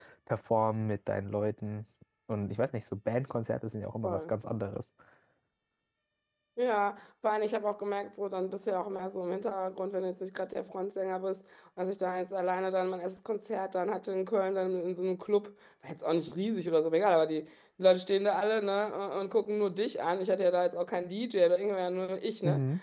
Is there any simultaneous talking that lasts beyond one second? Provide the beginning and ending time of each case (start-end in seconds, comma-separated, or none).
none